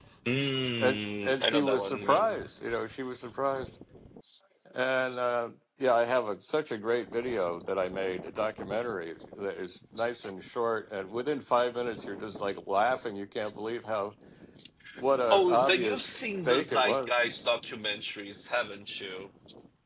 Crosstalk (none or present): present